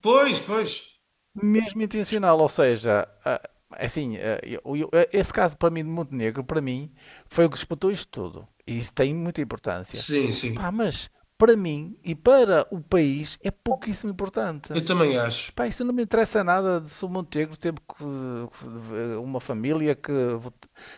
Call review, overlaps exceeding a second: none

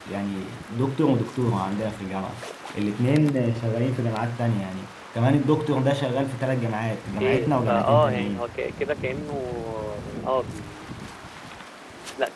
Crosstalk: present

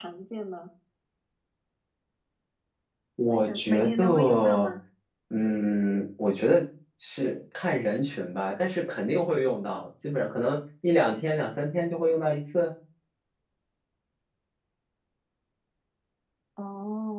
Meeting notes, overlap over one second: present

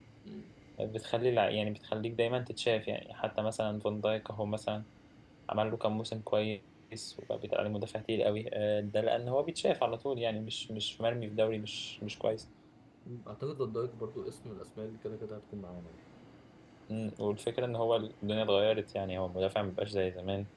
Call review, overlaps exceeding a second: none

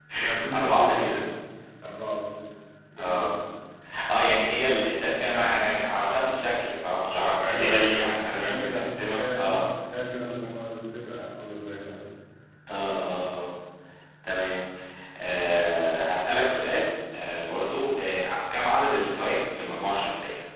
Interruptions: present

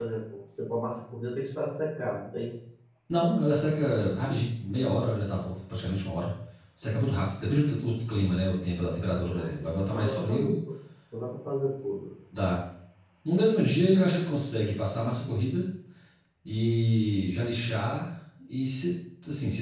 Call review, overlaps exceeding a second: present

